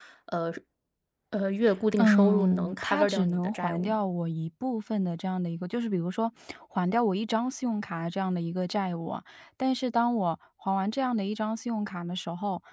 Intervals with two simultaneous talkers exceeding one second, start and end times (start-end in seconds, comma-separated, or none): 2.0-4.0